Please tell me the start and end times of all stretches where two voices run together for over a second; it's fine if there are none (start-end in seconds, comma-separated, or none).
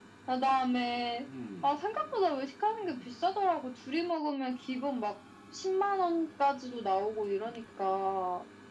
none